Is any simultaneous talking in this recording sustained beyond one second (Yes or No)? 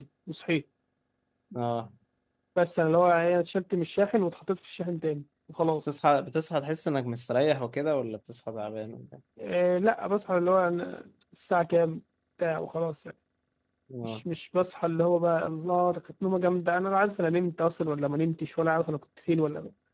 No